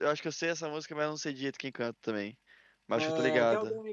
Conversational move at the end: taking over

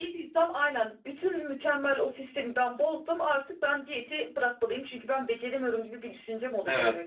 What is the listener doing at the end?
taking over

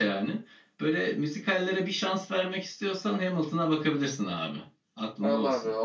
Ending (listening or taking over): taking over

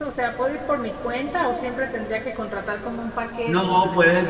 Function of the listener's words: taking over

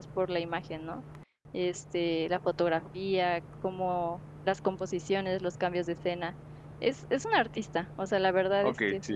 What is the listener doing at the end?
taking over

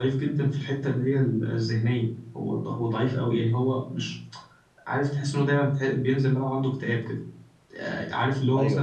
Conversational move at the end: listening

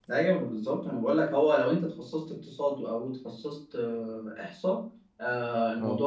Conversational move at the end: listening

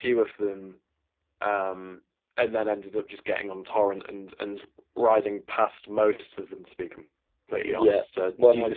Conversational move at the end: taking over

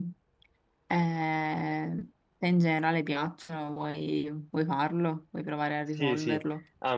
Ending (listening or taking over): taking over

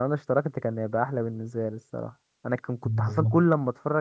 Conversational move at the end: listening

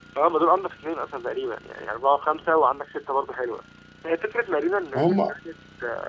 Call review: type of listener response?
listening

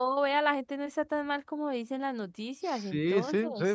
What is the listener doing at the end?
taking over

